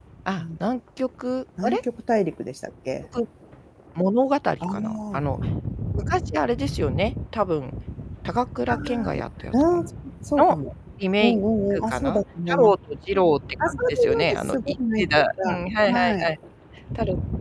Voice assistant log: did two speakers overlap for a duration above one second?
Yes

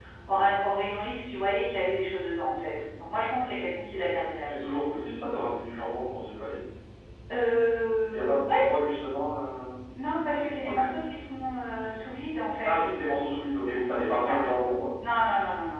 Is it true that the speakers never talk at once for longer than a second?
Yes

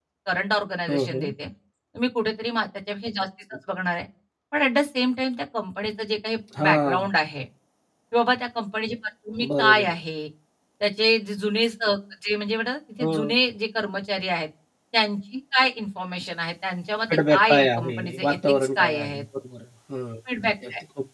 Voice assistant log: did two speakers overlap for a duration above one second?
Yes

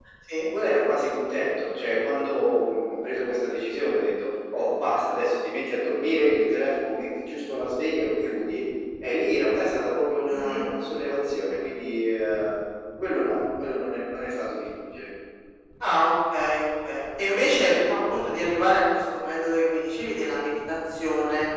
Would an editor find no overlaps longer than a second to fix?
Yes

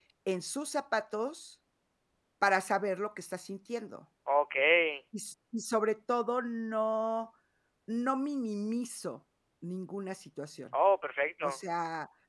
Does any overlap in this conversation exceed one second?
No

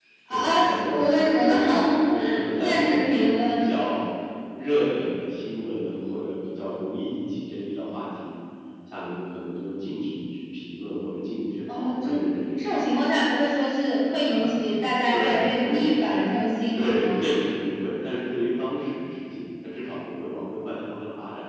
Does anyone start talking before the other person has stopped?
Yes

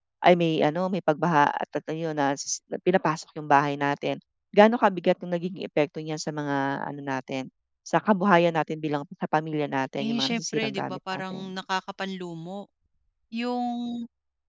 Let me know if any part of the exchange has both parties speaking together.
Yes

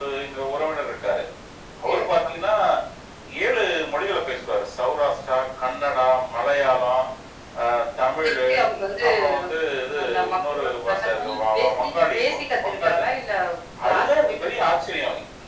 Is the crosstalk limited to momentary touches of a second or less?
No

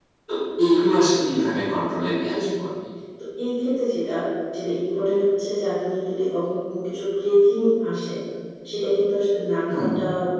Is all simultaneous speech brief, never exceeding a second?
Yes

